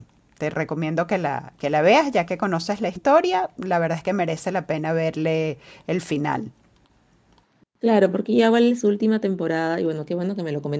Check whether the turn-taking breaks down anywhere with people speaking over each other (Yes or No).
No